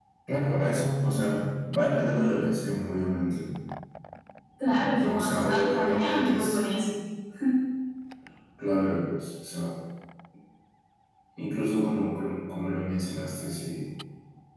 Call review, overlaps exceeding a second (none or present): present